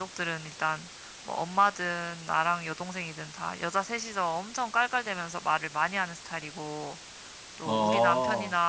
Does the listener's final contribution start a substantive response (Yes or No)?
No